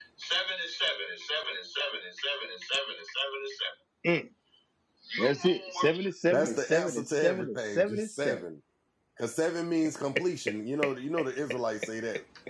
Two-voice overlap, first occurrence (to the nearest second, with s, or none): 6 s